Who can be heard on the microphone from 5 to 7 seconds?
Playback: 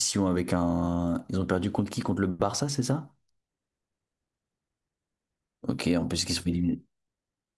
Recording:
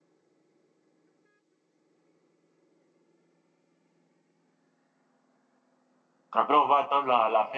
user only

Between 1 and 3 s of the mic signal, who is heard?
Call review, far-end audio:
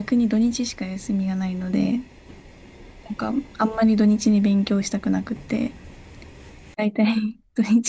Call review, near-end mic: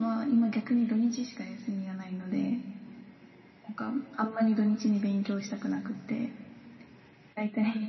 echo only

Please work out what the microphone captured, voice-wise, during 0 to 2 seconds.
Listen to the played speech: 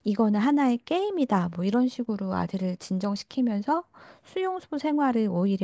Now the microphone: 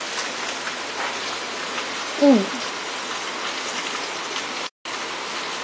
neither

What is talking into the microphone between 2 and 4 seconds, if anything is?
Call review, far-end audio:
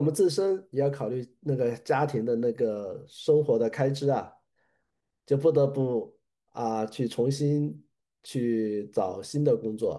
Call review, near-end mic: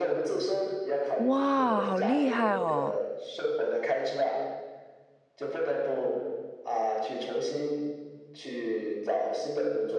both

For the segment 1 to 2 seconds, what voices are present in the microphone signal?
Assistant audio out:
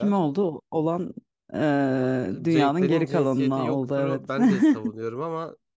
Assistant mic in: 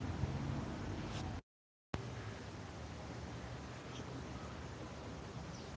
neither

